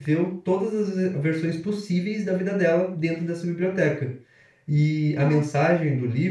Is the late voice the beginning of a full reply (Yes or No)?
No